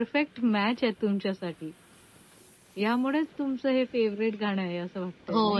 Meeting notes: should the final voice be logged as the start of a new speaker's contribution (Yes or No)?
Yes